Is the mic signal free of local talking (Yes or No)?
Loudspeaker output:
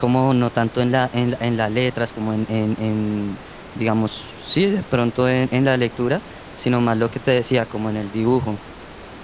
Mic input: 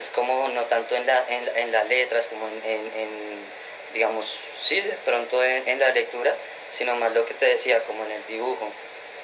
Yes